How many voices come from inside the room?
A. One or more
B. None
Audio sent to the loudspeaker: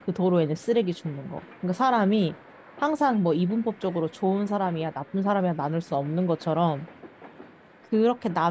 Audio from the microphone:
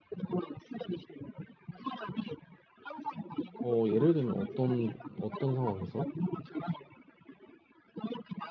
A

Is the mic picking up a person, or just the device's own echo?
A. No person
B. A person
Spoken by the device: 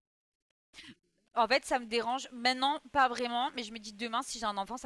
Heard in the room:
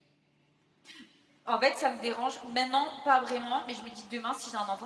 A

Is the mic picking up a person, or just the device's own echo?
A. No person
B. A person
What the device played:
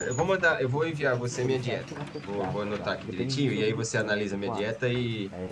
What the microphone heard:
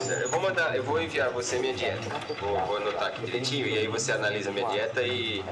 B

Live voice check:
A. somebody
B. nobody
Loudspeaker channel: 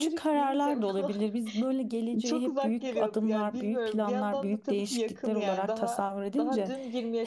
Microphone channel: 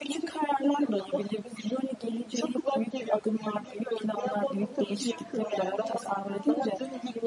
A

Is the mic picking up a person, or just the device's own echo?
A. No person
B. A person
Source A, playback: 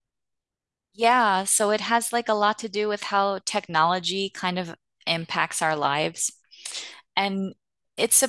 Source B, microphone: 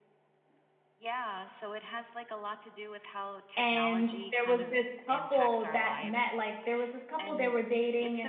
B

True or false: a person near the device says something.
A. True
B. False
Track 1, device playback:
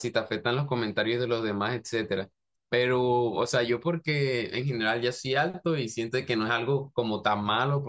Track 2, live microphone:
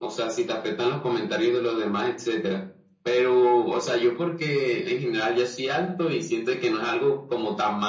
B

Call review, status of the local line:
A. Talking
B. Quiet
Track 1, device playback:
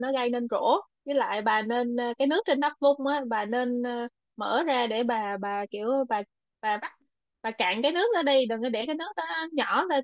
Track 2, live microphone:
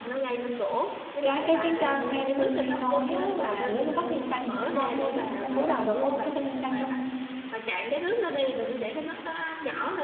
A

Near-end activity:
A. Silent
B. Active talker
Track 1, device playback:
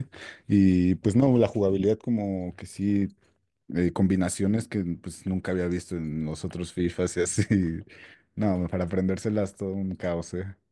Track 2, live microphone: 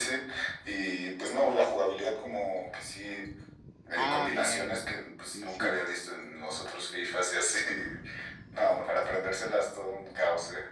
B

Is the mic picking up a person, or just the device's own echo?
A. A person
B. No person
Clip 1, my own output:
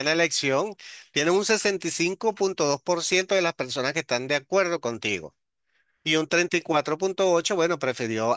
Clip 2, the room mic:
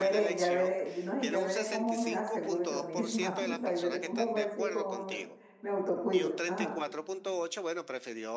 A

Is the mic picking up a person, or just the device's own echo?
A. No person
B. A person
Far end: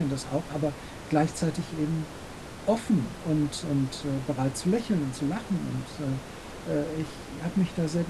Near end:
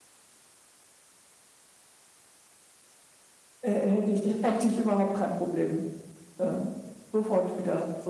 B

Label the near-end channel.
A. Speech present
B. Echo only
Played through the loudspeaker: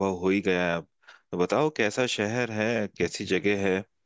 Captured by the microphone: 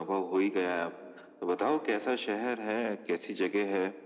B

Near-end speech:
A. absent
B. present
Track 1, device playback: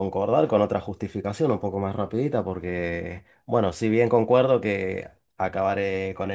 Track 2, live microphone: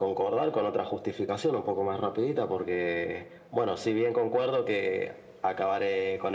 A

